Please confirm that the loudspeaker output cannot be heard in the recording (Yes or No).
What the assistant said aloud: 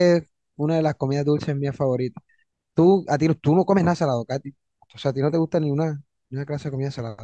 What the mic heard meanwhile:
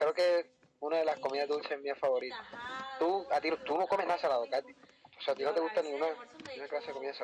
No